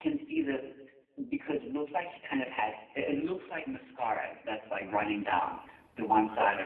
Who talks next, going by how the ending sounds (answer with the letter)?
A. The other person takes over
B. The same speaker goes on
A